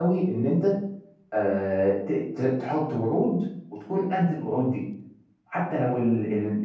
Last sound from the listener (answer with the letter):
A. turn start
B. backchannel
B